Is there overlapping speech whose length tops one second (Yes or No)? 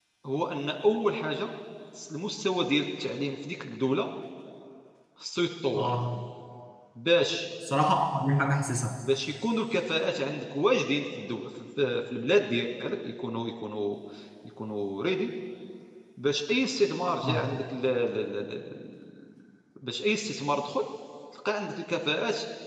No